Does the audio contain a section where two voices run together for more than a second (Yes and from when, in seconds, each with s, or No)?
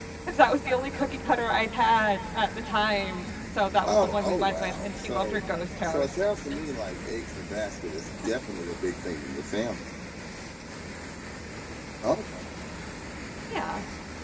Yes, from 3.8 s